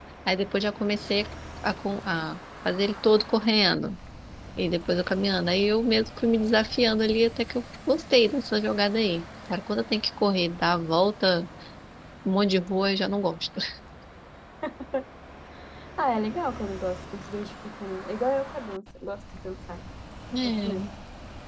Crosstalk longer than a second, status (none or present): none